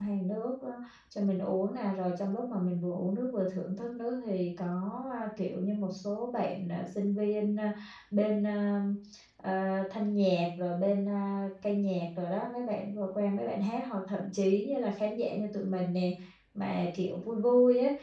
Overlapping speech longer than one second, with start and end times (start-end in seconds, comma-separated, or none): none